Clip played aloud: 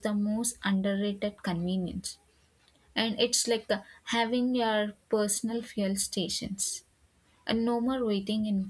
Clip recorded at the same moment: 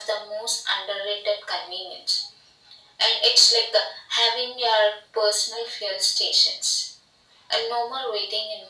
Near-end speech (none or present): none